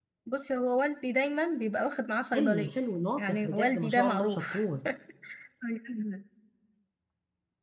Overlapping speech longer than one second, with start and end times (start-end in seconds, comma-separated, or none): 3.2-4.6